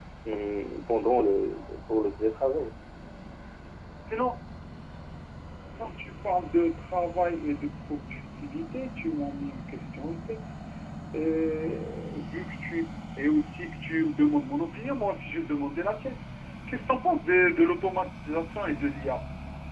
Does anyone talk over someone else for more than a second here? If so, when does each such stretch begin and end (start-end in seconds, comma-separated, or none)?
none